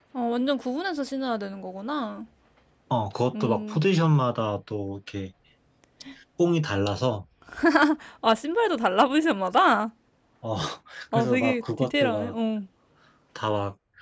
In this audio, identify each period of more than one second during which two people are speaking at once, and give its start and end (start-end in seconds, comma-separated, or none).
11.1-12.3